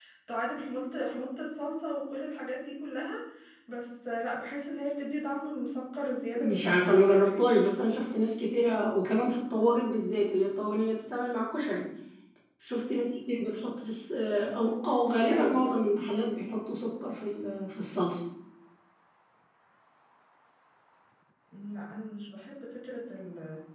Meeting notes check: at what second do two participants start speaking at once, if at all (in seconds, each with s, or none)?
6.4 s